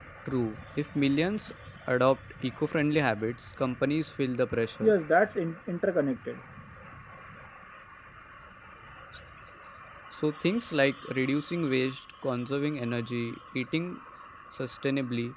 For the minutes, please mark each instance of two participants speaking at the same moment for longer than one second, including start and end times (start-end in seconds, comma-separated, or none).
none